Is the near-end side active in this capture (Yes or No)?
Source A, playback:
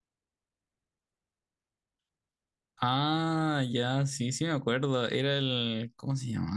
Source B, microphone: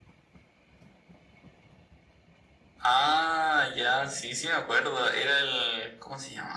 No